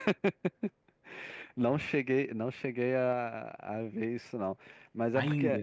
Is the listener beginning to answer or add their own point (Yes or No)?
No